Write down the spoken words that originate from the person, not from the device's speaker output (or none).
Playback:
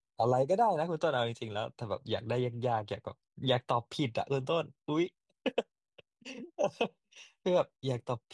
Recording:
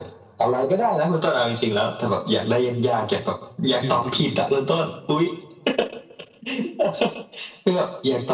ชื่อของผู้หญิง